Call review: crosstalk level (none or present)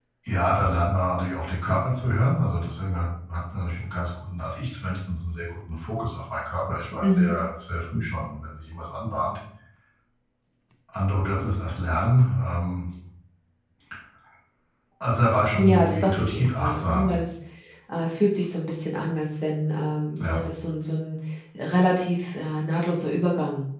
present